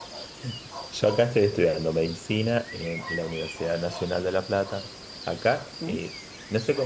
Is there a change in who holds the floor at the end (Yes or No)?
No